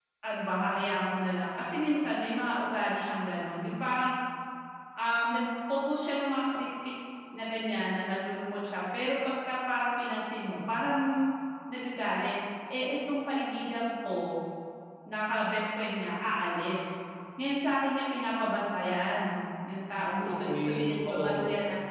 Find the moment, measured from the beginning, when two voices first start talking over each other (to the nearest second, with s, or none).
20 s